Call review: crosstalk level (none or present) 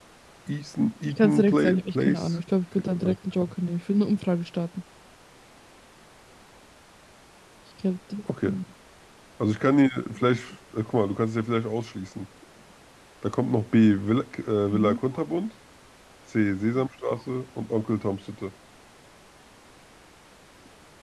present